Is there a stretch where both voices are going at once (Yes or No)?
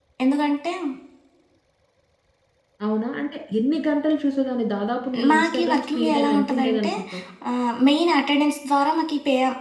Yes